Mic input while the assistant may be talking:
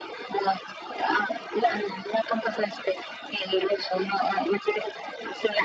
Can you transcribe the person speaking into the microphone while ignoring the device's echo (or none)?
none